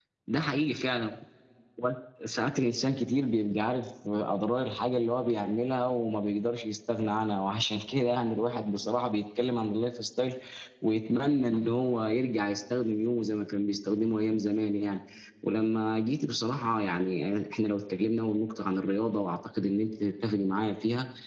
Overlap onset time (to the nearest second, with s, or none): none